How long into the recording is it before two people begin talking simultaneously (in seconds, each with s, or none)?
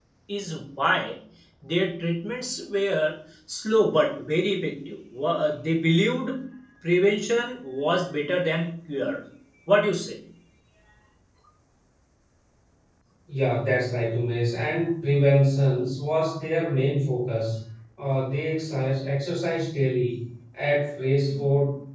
none